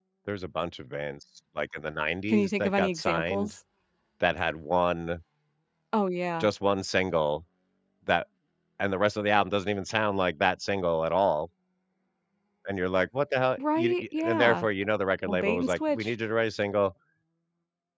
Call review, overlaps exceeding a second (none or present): present